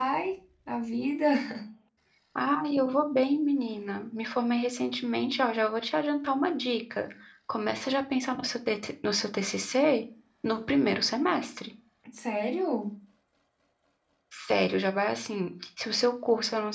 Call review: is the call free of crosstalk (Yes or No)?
Yes